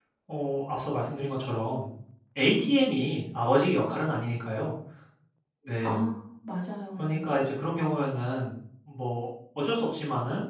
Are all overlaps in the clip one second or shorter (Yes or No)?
Yes